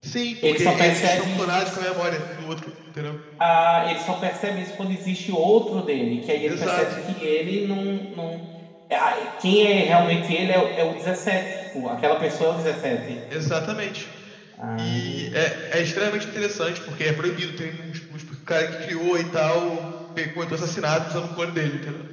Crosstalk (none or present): present